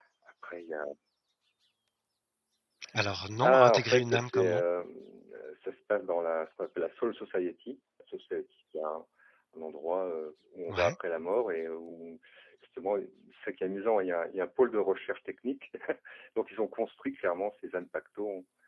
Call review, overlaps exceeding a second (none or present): present